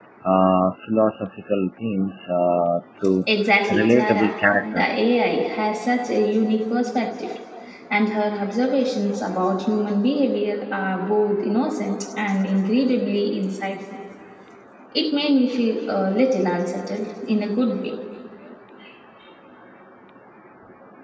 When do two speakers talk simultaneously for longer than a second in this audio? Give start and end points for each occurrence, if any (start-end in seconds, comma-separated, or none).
3.7-5.0